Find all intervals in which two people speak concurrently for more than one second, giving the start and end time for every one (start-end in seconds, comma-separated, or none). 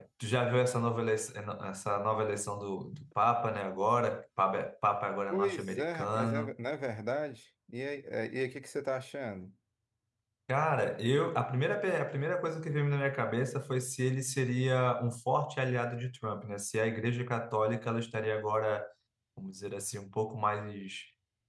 5.3-6.5